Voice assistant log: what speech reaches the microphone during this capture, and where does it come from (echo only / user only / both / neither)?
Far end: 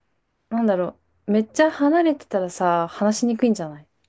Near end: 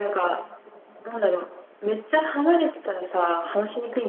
echo only